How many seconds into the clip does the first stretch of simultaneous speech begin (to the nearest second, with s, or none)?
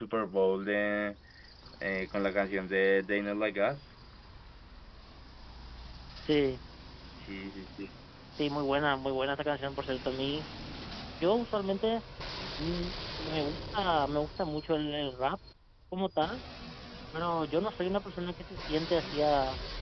none